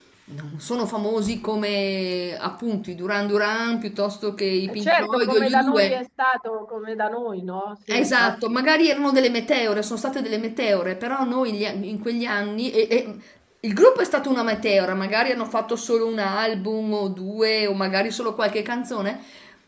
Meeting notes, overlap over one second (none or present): present